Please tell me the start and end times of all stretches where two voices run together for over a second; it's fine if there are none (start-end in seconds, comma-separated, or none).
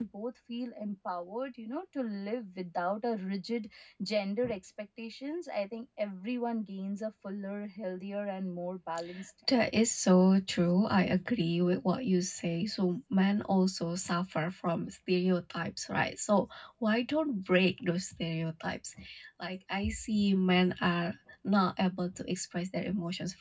none